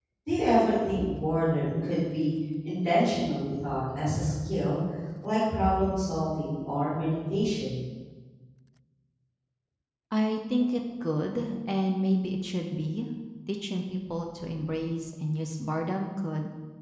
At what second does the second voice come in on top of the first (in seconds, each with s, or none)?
none